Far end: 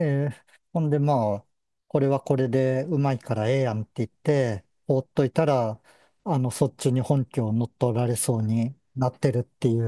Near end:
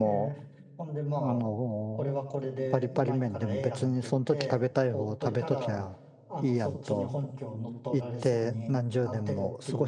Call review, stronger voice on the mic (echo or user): user